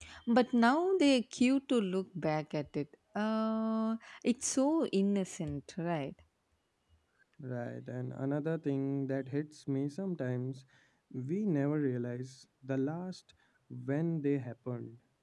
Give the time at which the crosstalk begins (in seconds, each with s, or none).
none